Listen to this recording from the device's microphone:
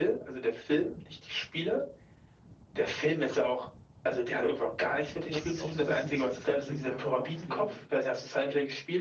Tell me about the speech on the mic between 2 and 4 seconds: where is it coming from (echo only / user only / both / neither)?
echo only